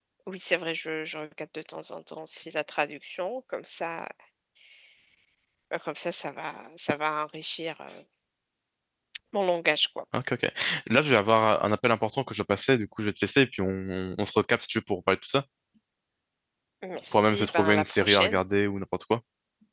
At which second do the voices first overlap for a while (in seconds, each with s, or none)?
17.1 s